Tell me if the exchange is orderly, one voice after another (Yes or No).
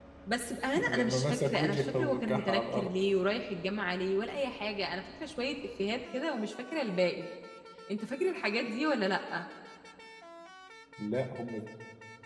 No